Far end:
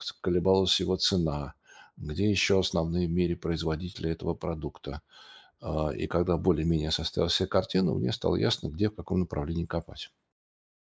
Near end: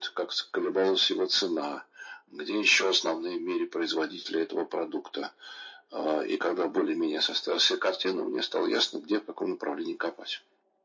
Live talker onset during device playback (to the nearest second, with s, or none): none